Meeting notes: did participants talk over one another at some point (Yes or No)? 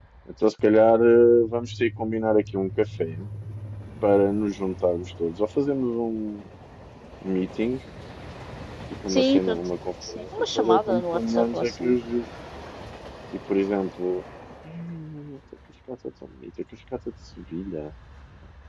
Yes